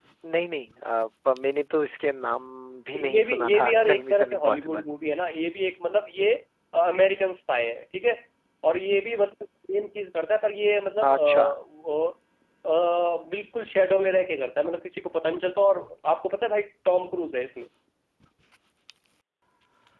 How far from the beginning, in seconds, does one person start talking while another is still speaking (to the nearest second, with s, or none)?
3 s